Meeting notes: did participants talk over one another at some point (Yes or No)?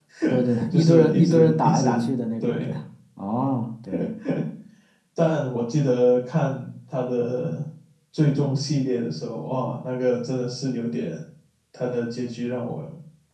Yes